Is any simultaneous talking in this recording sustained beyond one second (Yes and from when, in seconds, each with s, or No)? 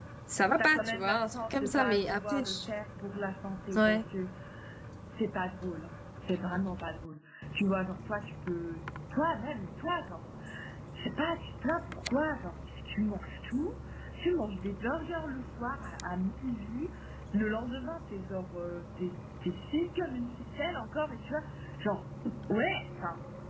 Yes, from 0.6 s